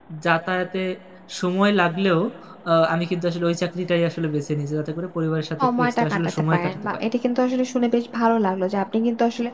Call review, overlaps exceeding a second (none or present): present